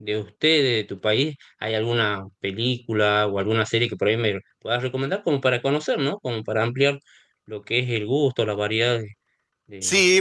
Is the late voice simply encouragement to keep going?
No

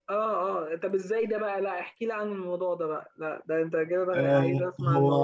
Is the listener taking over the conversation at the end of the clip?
Yes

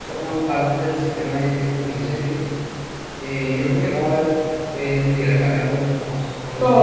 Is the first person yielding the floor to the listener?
Yes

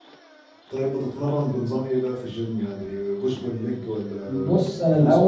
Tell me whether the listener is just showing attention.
No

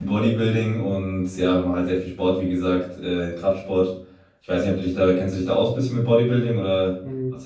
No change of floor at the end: No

